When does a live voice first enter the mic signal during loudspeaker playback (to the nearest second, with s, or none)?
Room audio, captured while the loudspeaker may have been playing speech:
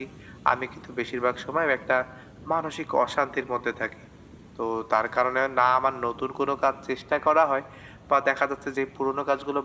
none